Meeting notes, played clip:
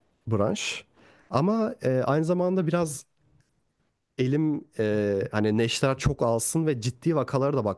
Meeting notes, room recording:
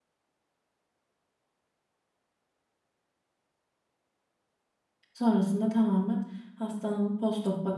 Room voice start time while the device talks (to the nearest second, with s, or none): 5 s